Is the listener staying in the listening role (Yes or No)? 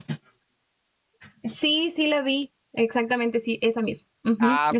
No